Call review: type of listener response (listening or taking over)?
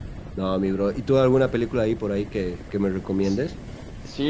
taking over